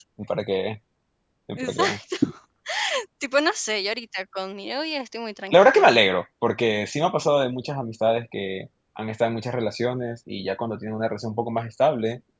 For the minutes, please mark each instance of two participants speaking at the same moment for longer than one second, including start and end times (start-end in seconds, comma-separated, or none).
none